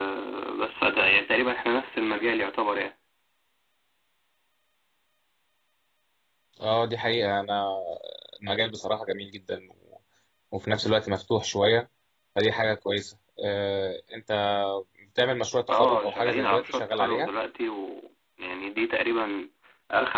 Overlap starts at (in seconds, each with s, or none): 15.7 s